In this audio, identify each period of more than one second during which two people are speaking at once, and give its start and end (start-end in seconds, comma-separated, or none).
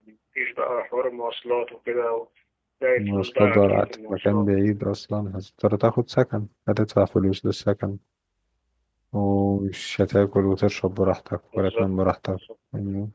3.0-4.5